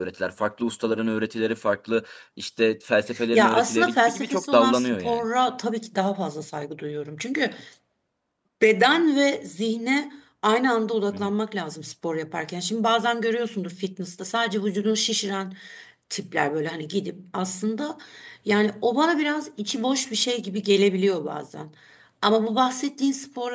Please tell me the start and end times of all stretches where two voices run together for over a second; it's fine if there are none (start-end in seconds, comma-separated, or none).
3.3-5.3